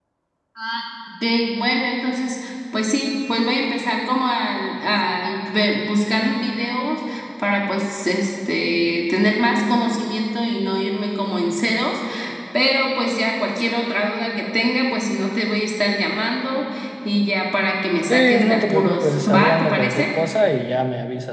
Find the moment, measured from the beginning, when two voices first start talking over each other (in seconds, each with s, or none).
18.1 s